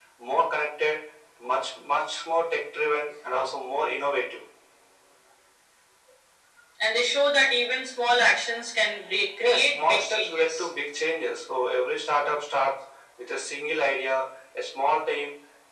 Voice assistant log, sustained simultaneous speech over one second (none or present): present